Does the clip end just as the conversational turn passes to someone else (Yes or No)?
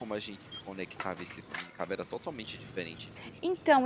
Yes